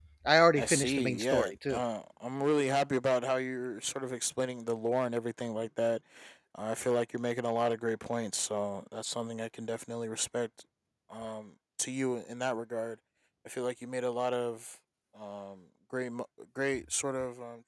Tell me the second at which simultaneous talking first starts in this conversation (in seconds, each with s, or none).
0.6 s